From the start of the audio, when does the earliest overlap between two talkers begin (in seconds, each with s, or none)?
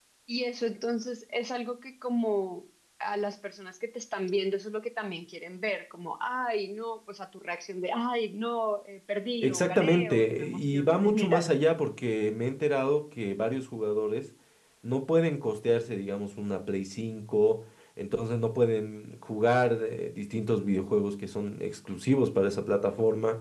9.4 s